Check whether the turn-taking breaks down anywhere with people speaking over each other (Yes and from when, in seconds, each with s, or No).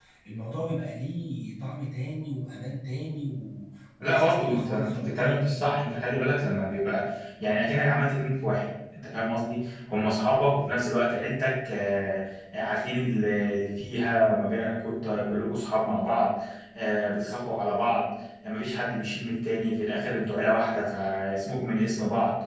Yes, from 4.0 s